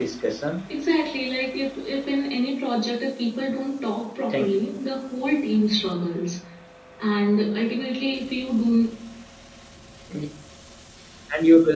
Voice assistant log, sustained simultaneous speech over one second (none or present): none